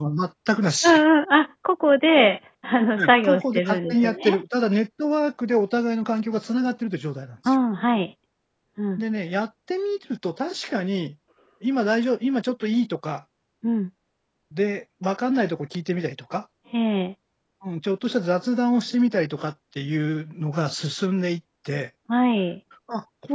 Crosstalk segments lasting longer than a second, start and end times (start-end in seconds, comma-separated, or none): 3.0-4.4